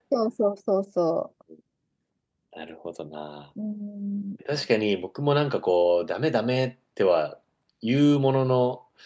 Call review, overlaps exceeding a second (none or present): none